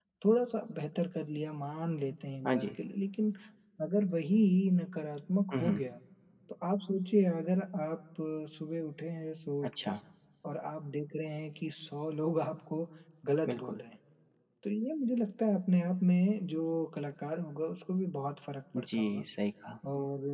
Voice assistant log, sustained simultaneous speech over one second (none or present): none